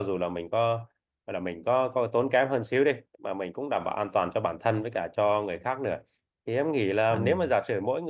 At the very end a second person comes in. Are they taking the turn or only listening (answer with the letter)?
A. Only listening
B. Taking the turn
A